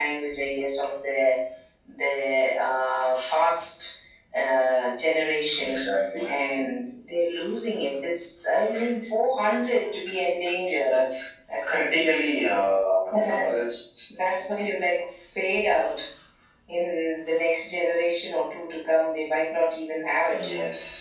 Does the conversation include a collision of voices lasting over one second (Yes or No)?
No